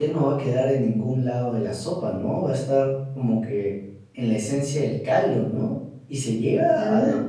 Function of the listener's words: listening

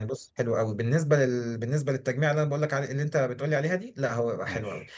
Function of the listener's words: listening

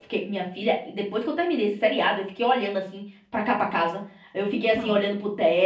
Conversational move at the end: listening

